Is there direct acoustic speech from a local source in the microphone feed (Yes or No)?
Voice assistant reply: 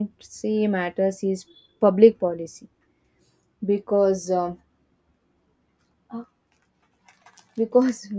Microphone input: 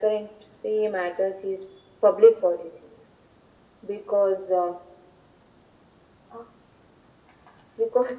No